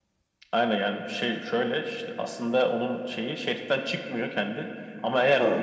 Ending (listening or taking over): listening